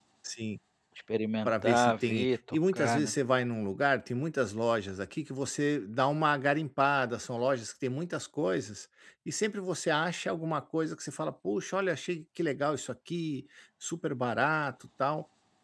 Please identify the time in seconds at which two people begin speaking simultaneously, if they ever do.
1 s

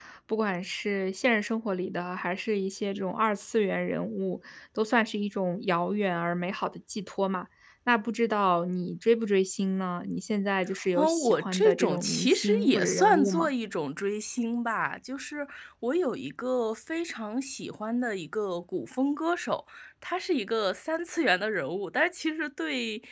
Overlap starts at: 11 s

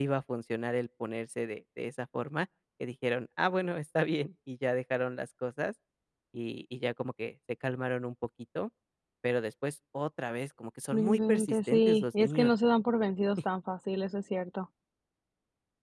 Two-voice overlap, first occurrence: 11 s

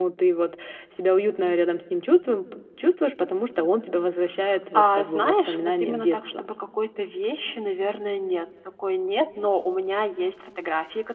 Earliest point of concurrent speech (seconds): 5 s

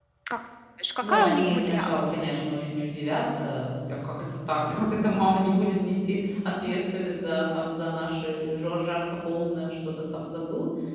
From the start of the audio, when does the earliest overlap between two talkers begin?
1 s

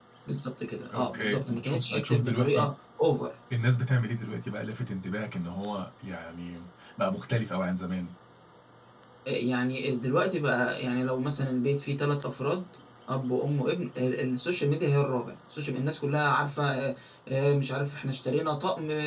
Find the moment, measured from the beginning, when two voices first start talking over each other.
1 s

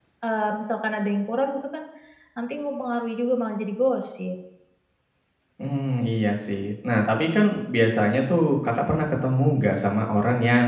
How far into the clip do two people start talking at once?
none

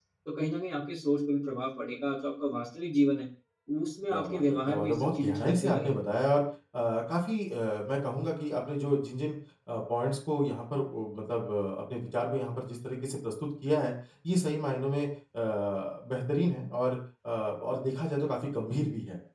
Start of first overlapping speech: 4 s

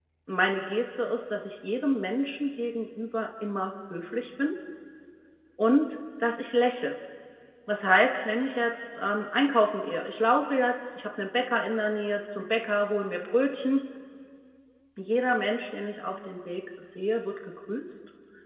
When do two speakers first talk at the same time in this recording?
none

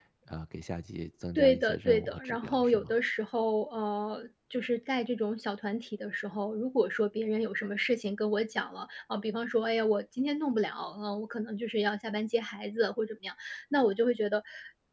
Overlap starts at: 1 s

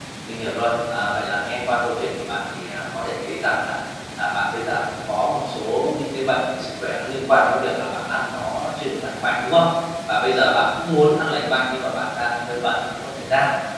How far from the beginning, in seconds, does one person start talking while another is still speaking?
none

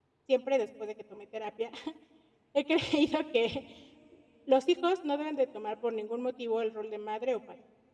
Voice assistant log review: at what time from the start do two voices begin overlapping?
none

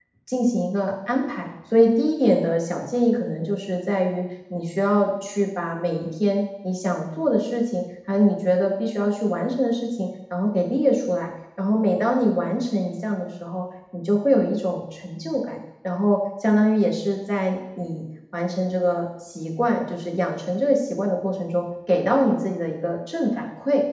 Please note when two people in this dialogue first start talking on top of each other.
none

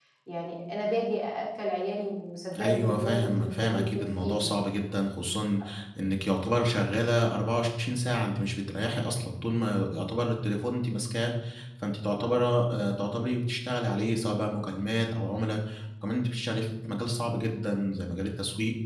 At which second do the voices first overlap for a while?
3 s

